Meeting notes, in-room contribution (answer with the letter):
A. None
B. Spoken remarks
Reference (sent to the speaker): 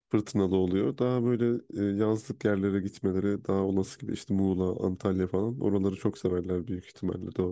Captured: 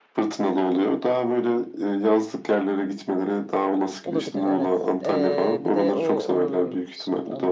B